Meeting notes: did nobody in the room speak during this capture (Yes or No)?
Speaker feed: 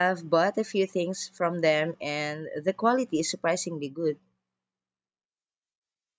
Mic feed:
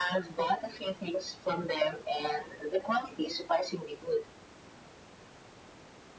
Yes